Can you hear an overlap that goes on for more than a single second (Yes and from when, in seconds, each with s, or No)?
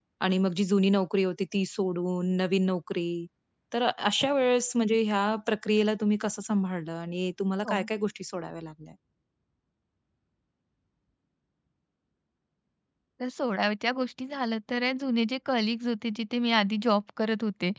No